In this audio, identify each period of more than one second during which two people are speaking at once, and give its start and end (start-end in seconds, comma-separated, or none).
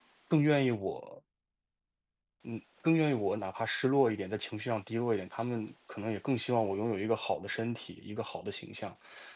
none